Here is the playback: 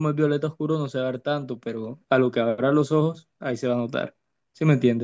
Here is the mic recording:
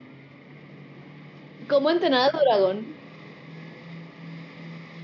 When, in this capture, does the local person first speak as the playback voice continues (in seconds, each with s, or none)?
1.7 s